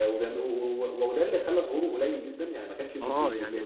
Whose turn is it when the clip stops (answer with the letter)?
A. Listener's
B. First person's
A